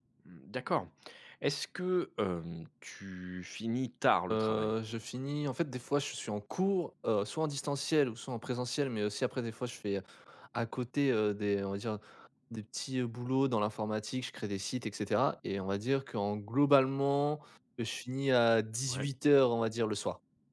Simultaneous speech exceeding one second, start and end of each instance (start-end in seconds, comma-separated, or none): none